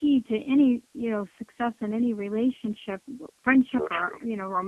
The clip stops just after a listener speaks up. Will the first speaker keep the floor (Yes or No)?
Yes